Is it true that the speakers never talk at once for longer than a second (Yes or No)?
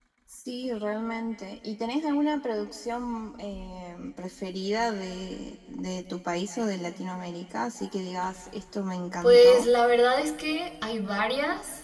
Yes